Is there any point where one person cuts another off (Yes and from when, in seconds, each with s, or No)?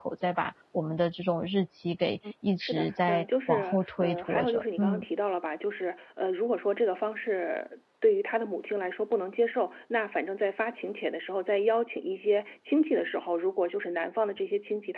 Yes, from 2.6 s